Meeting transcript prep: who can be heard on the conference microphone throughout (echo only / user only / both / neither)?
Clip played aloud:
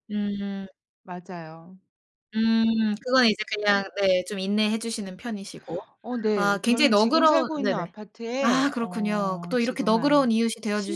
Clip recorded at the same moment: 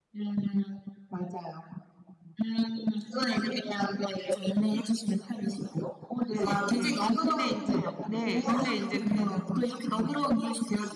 both